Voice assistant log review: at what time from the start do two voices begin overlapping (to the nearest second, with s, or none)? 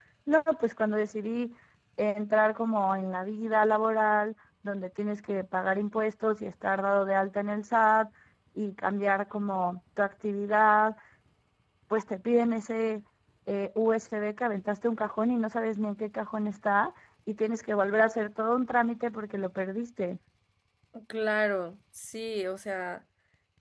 none